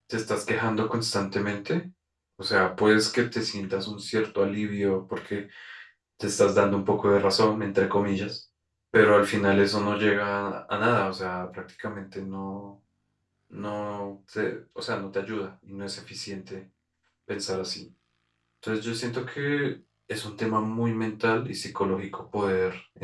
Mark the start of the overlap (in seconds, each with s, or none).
none